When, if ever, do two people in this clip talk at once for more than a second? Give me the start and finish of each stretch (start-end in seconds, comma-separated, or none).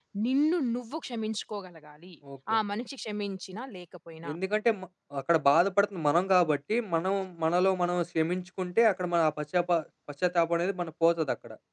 none